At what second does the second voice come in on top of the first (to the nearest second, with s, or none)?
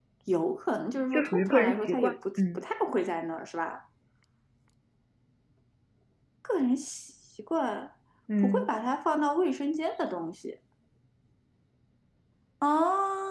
1 s